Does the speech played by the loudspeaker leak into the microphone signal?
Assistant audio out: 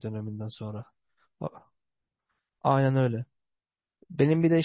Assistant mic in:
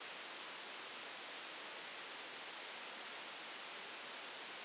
No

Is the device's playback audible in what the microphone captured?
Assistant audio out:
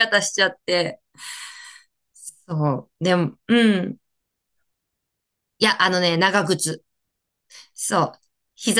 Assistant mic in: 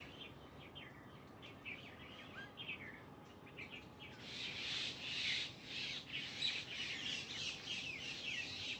No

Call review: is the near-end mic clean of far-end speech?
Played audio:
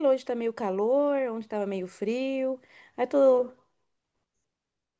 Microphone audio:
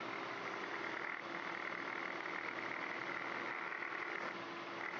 Yes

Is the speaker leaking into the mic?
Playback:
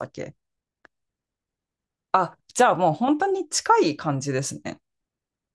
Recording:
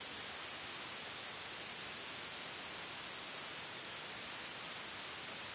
No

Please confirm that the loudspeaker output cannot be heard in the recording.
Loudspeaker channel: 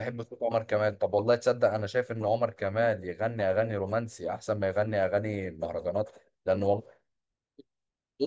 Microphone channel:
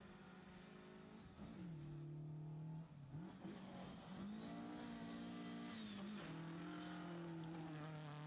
Yes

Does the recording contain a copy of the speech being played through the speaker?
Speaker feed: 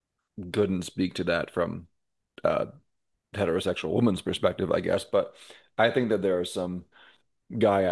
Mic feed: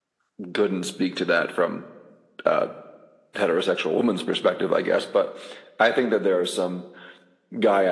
Yes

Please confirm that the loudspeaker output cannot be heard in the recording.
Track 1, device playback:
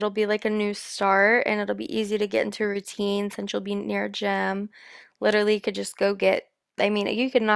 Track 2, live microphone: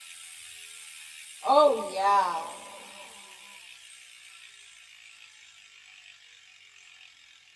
Yes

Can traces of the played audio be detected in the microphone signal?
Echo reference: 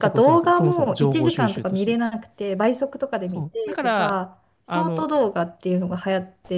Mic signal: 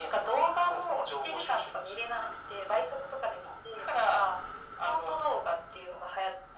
Yes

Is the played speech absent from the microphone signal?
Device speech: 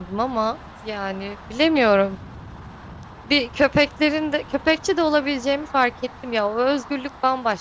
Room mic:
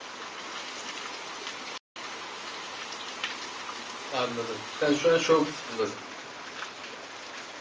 Yes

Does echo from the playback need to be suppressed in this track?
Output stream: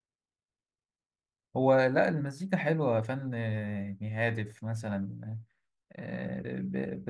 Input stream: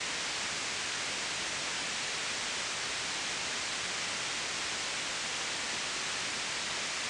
No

